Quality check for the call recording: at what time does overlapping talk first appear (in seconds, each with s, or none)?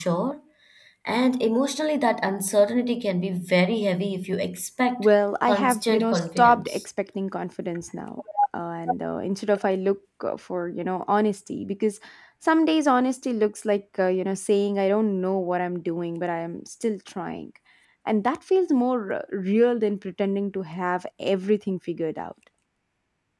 5.4 s